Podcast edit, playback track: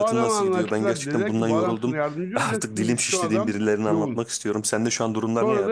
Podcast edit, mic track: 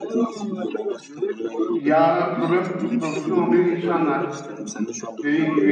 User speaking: Yes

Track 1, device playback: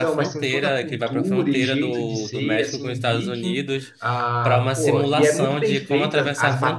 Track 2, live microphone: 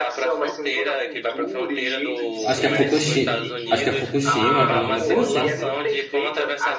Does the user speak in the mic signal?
Yes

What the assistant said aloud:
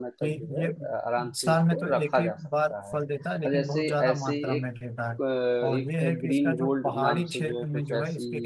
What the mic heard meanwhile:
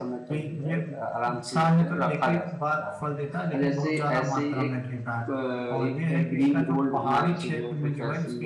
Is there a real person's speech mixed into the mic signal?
No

